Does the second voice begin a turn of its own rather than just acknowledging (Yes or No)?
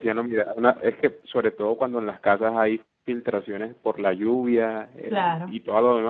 No